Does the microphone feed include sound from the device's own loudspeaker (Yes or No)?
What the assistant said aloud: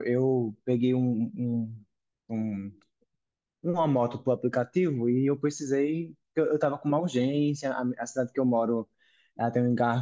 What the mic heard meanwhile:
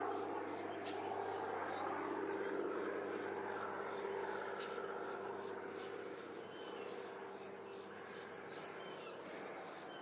No